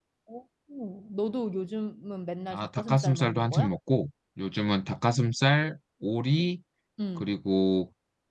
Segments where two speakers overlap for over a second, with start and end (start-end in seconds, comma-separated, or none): 2.5-3.7